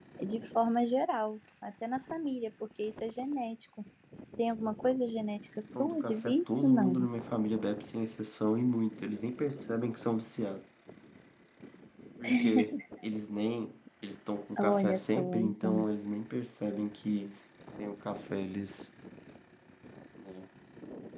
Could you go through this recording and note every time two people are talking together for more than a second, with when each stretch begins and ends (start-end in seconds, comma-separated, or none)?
5.8-7.1, 14.6-15.8